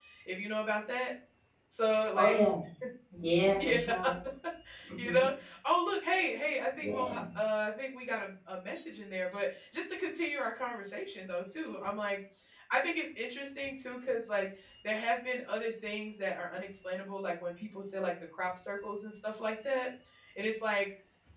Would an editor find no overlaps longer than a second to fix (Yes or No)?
Yes